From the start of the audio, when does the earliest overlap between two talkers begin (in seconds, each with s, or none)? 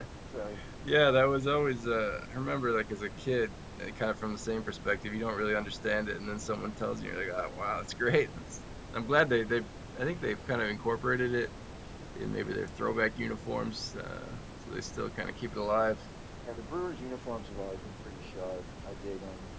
none